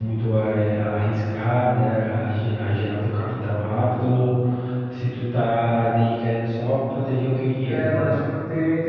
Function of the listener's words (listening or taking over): taking over